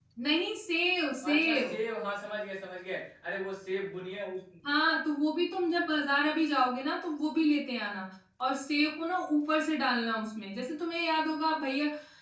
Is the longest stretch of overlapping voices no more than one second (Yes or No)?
Yes